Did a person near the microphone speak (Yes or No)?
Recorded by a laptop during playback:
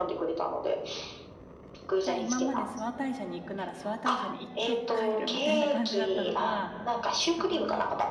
Yes